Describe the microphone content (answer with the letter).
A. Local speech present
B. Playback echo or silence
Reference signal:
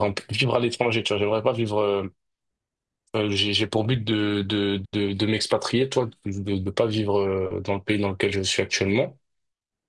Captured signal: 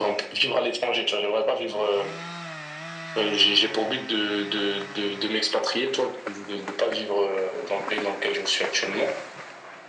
B